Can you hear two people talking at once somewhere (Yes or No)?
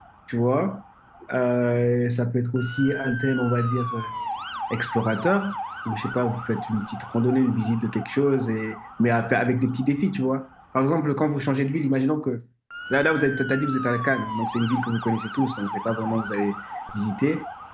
No